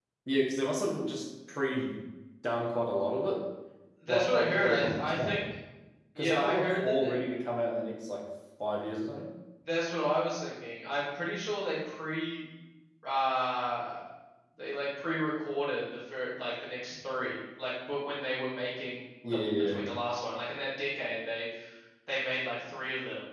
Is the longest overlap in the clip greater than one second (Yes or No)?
Yes